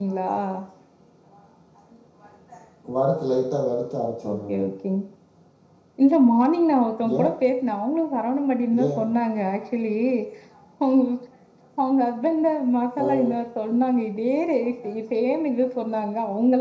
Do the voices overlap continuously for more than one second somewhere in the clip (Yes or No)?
No